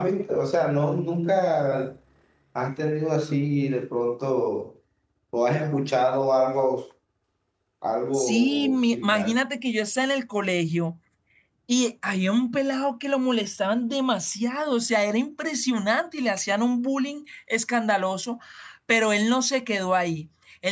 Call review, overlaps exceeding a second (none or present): present